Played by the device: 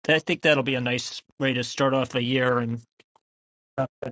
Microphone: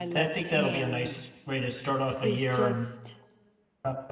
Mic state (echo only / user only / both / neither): both